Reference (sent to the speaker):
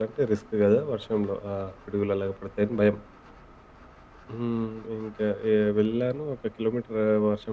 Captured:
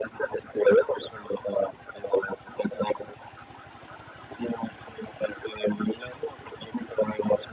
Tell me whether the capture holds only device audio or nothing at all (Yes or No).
Yes